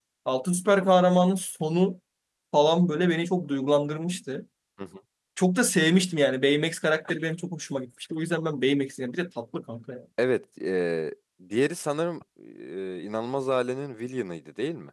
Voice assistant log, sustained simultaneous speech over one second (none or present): none